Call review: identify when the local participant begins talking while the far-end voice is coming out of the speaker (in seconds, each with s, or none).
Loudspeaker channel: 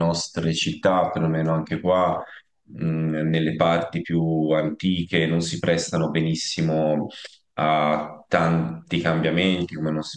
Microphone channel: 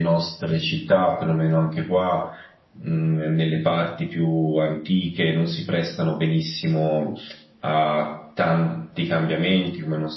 none